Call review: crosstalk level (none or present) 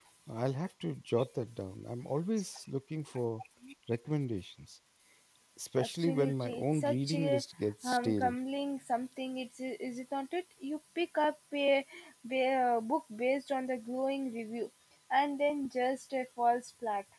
present